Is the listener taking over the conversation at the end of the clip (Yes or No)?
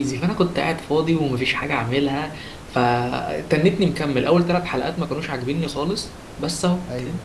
No